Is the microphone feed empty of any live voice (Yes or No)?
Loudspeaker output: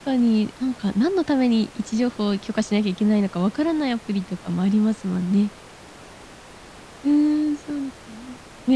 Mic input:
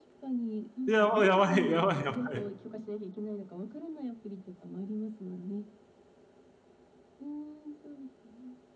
No